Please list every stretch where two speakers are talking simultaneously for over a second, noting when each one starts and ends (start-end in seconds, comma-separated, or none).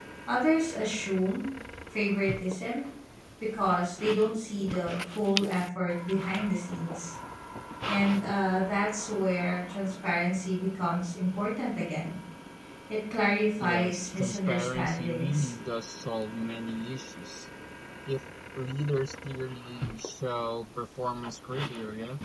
13.6-15.5